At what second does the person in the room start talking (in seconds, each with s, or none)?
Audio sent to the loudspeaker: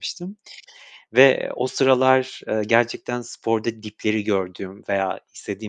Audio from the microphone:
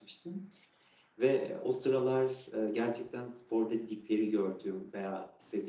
none